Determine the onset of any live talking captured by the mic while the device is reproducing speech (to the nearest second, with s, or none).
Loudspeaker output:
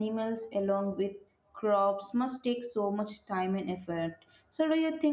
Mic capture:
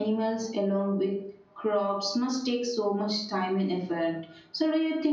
none